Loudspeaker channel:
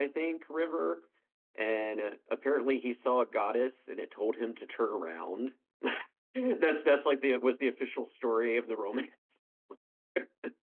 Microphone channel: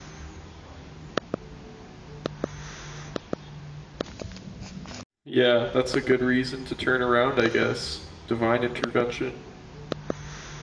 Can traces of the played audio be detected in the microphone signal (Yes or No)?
No